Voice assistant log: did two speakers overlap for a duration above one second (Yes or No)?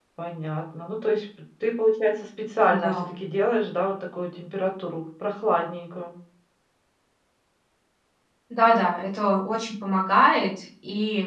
No